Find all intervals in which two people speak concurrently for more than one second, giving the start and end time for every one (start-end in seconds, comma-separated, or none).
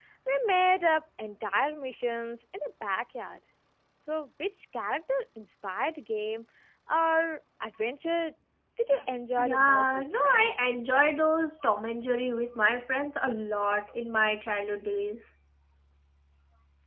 9.4-10.6